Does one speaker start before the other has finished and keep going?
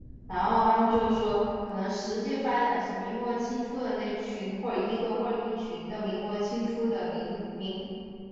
No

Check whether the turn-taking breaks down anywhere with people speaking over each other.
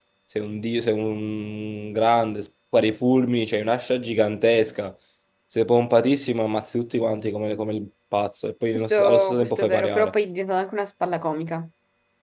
Yes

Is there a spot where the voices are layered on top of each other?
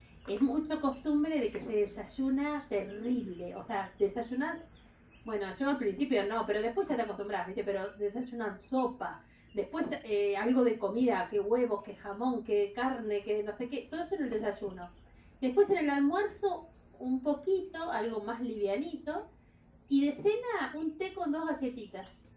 No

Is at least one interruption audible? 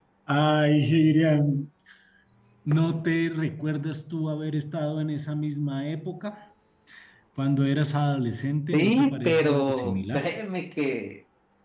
Yes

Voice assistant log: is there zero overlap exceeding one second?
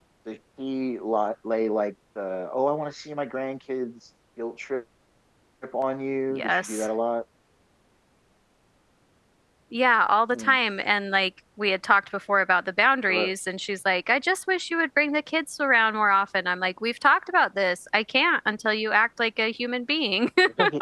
Yes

